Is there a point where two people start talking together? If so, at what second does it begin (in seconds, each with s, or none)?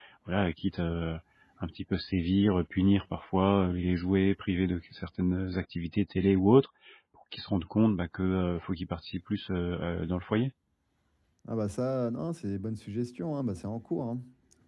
none